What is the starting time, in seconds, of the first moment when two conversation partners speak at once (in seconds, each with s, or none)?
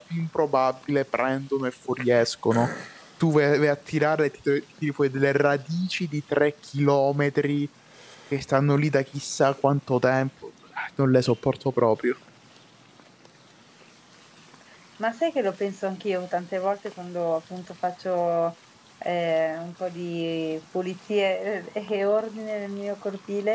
none